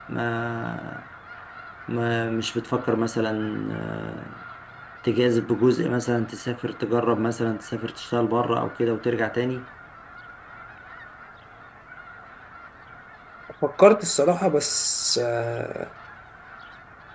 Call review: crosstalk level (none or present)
none